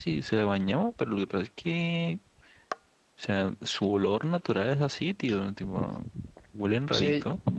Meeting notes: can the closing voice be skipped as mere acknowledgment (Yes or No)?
No